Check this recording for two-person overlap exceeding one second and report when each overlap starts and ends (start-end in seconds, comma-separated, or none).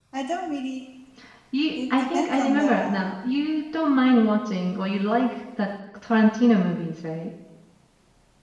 1.9-3.1